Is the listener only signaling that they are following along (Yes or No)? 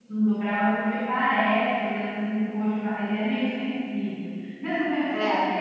Yes